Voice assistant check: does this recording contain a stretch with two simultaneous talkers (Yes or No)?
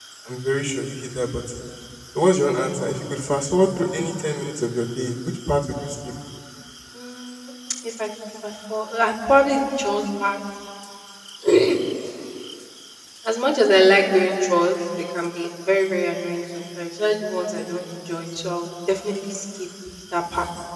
No